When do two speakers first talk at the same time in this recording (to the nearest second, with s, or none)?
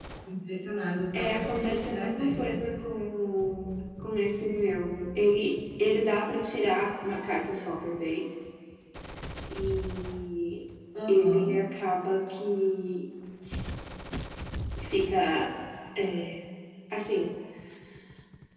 1 s